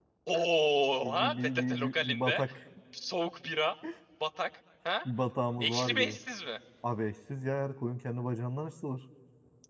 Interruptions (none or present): present